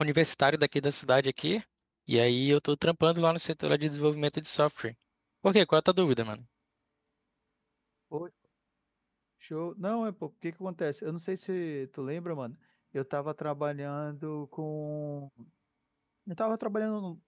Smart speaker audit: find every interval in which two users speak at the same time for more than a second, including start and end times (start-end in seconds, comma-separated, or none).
none